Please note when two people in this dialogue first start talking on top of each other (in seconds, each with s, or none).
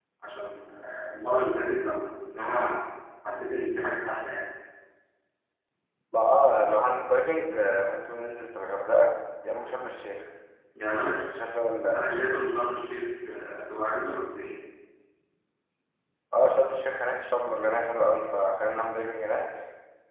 none